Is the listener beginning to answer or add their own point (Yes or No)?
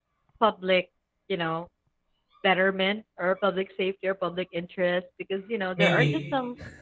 No